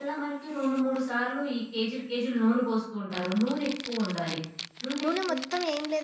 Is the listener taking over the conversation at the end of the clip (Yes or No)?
Yes